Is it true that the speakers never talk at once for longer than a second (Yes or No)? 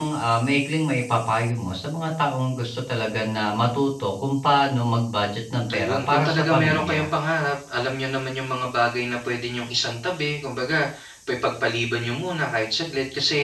No